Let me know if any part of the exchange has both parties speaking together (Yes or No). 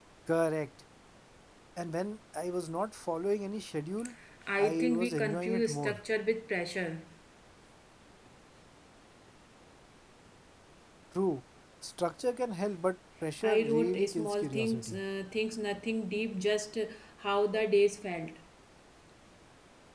Yes